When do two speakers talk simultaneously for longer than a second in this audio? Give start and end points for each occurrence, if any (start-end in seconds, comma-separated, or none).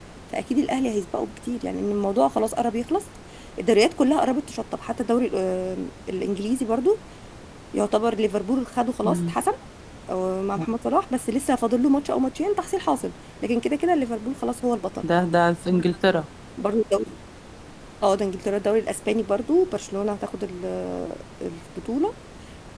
none